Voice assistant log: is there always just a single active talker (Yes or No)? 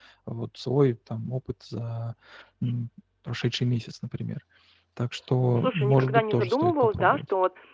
No